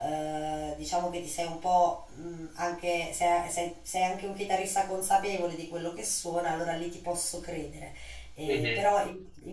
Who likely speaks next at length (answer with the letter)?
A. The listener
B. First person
B